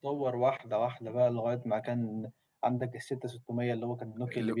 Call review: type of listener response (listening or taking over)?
taking over